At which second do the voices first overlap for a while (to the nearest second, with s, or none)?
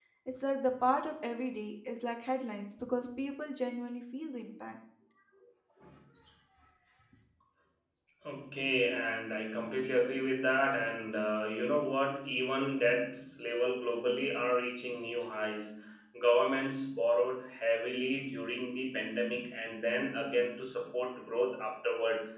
none